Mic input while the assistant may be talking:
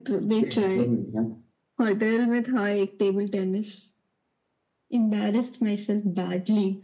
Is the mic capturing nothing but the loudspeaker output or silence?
No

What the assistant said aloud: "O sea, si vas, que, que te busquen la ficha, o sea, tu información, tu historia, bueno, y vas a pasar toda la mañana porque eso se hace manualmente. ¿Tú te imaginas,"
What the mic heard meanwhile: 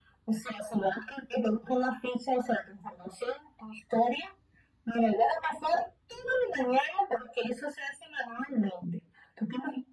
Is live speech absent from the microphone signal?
Yes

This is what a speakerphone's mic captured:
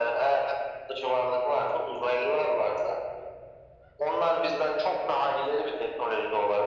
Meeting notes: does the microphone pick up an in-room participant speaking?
No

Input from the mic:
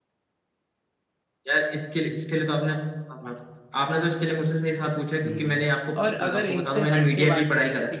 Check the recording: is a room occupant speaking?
Yes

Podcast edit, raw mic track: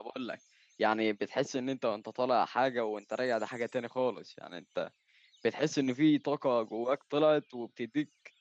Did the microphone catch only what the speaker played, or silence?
No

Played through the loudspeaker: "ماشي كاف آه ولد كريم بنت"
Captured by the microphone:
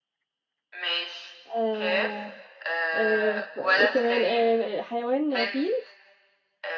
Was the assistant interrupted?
Yes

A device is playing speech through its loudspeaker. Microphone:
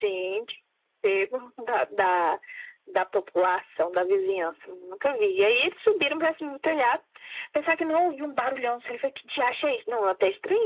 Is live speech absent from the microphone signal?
Yes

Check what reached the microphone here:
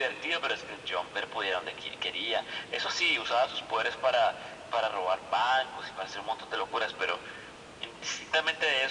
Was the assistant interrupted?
No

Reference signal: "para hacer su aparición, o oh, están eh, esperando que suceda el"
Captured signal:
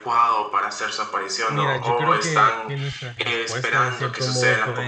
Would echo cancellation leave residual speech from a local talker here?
Yes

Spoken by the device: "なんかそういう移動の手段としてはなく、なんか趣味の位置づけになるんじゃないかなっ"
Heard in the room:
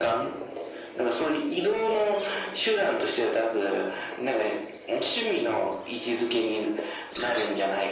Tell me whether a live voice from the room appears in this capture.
No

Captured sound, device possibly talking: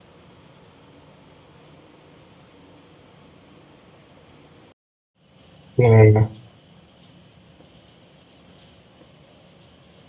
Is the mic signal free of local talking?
No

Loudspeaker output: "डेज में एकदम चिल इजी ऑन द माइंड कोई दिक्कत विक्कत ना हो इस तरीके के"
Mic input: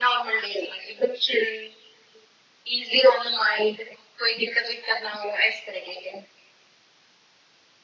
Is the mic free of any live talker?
Yes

